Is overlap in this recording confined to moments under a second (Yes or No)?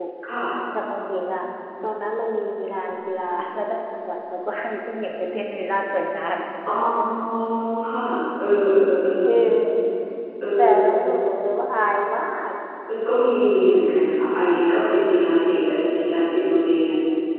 Yes